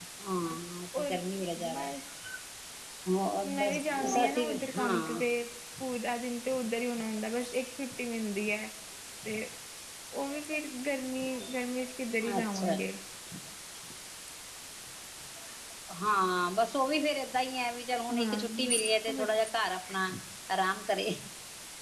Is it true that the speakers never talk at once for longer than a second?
No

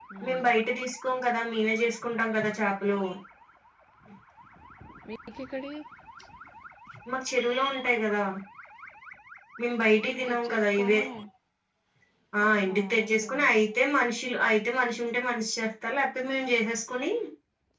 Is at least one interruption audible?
Yes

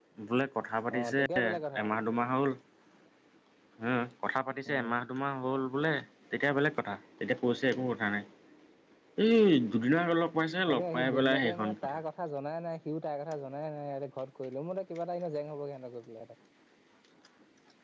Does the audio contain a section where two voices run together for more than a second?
Yes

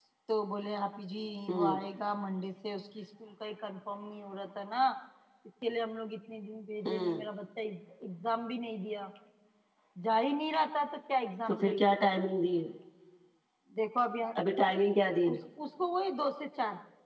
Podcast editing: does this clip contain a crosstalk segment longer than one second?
No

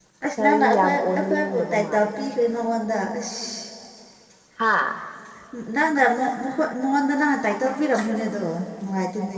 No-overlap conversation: No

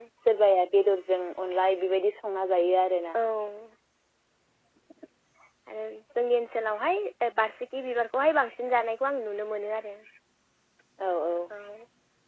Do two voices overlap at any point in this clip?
No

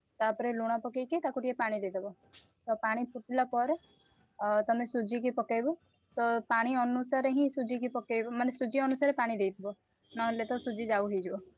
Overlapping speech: No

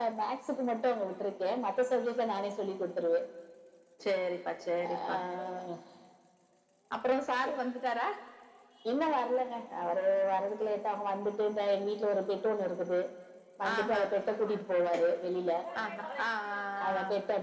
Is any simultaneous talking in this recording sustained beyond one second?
No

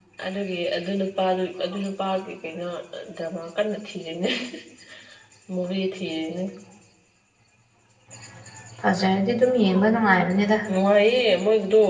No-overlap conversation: Yes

